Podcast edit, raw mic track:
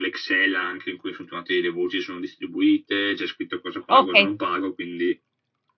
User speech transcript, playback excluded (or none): okay.